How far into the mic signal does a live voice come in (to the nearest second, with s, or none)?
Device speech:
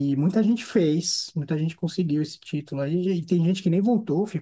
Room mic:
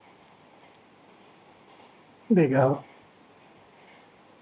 2 s